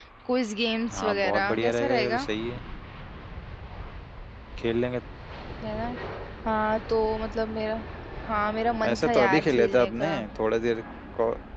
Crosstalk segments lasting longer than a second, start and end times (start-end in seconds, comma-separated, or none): 0.9-2.3, 8.9-10.2